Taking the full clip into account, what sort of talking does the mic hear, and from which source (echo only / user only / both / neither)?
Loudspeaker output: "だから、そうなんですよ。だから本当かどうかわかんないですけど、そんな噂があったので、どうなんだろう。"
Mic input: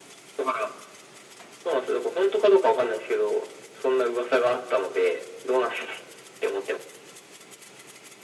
echo only